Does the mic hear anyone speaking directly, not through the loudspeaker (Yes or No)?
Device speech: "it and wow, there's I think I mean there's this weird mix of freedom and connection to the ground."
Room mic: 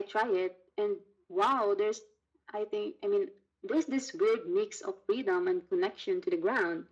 No